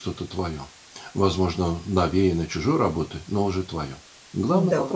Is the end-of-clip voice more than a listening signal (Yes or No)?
Yes